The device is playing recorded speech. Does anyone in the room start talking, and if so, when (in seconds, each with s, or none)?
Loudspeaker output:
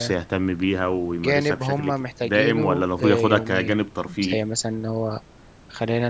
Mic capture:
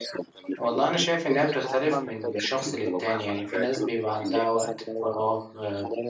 0.6 s